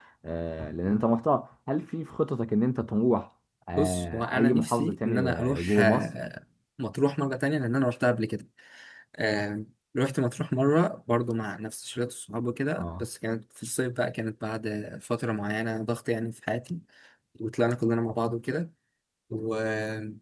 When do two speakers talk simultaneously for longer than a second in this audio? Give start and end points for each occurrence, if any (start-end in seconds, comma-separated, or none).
3.8-6.1